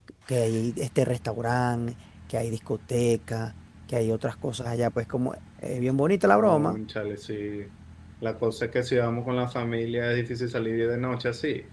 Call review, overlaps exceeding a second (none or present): none